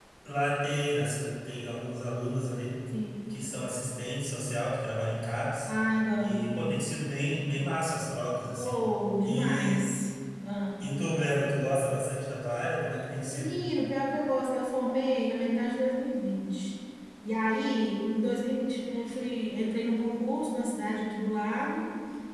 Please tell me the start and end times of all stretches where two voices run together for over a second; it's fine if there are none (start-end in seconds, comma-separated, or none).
none